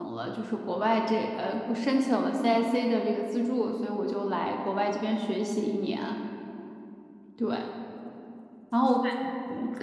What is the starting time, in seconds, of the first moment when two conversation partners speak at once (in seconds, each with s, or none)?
none